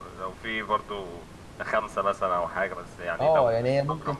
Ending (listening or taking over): taking over